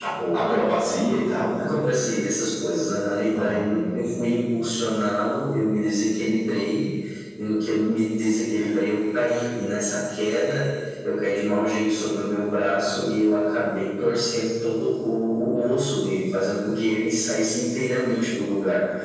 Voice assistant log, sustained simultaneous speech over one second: none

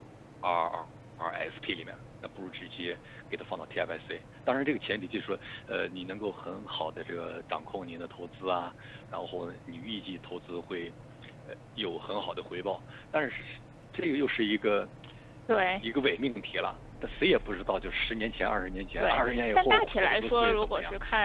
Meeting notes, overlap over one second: present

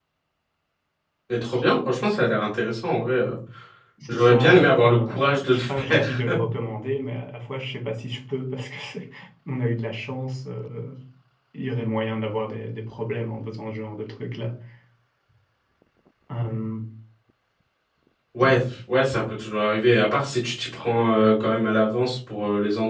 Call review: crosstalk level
present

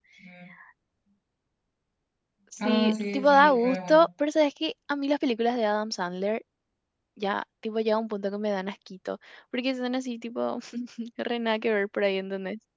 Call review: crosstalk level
present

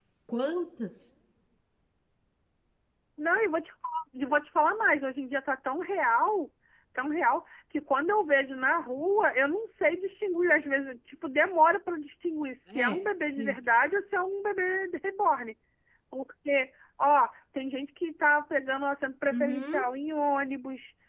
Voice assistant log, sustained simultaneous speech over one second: none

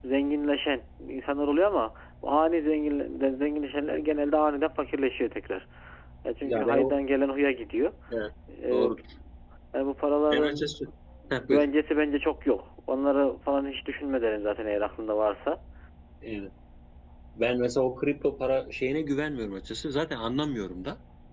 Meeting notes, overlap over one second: none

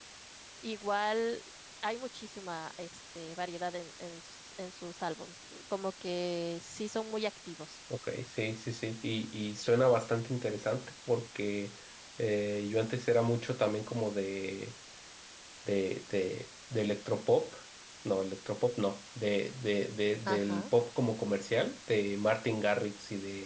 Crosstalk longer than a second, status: none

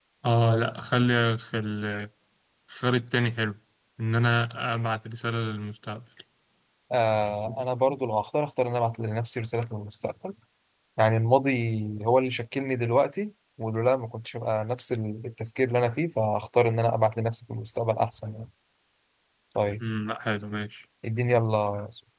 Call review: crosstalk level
none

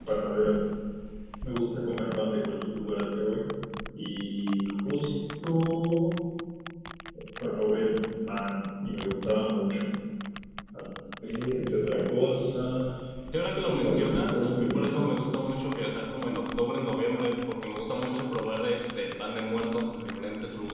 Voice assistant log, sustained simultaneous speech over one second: present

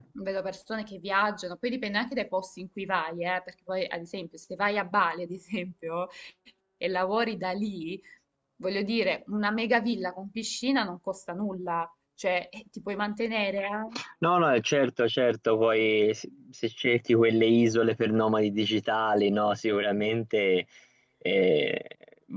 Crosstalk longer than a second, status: none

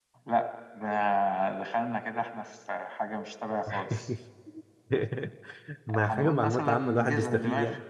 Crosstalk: present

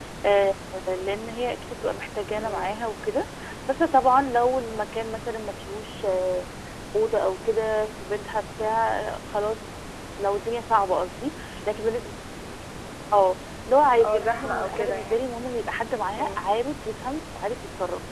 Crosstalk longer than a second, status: present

